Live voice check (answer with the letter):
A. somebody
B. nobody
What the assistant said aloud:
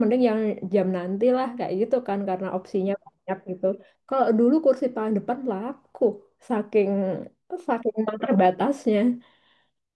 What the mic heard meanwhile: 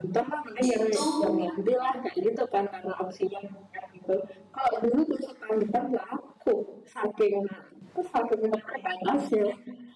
A